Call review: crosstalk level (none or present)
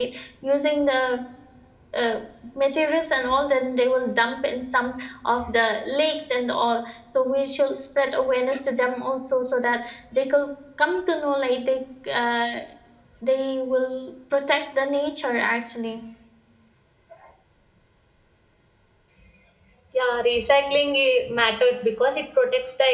none